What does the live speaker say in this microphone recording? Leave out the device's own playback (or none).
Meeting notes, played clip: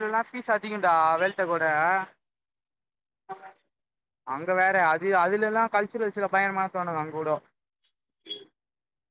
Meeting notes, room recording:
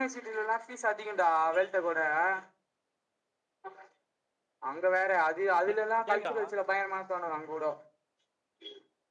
அக் கேக்தா